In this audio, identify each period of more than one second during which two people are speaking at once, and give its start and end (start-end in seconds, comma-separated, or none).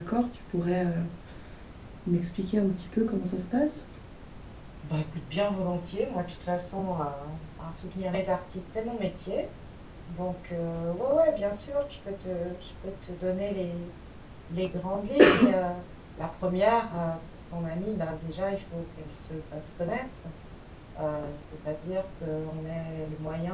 none